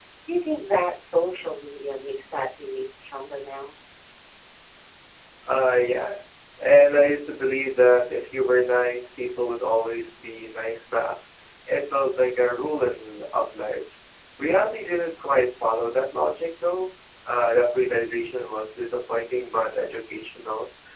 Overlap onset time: none

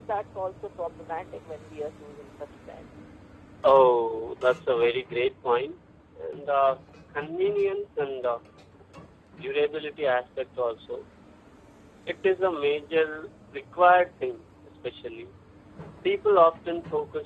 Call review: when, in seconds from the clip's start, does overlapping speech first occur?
none

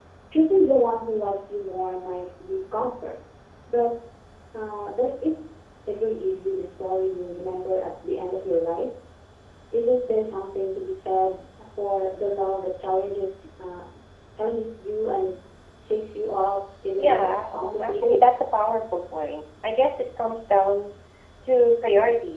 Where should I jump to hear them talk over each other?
17.0 s

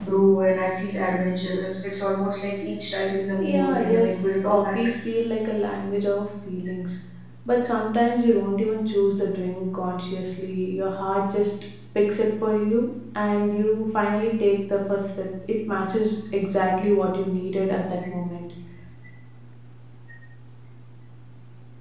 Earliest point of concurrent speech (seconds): 3.4 s

